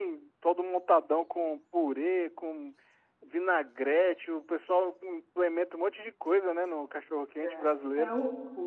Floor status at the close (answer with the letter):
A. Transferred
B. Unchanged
A